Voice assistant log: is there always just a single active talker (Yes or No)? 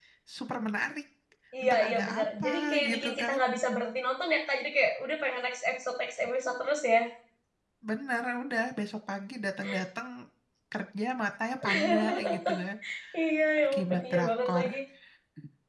No